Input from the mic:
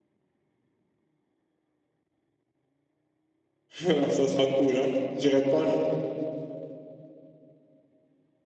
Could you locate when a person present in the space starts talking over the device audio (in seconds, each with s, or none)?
3.8 s